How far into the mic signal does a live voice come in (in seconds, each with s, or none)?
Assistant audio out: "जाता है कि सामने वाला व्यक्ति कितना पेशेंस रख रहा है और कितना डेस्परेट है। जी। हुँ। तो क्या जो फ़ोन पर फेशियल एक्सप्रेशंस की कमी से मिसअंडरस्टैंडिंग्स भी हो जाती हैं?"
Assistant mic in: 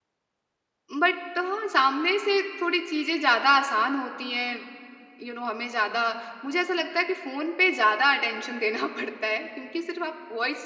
0.9 s